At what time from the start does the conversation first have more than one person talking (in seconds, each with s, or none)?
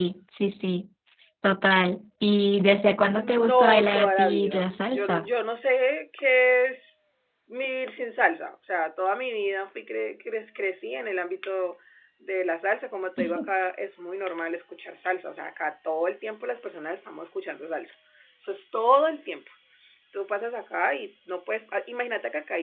3.1 s